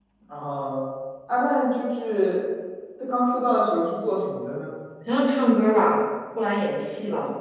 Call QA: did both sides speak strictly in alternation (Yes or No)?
Yes